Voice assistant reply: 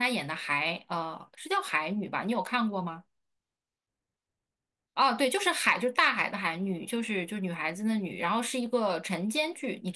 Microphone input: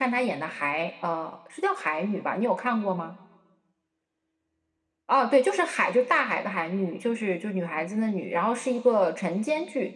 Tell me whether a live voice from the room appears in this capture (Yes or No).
No